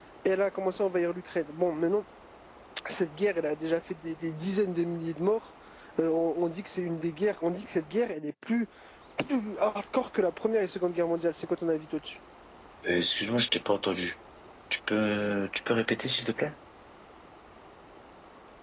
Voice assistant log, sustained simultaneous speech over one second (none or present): none